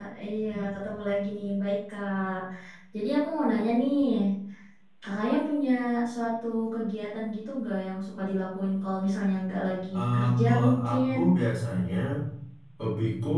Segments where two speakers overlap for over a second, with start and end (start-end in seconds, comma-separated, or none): 9.9-11.2